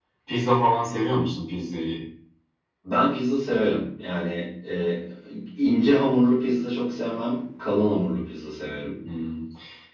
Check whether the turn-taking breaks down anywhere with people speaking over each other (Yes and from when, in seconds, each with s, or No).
No